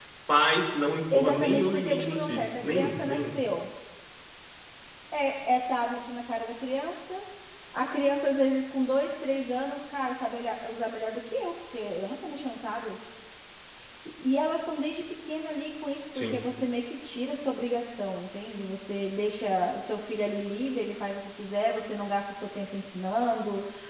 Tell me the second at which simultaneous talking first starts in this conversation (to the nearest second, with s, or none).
1 s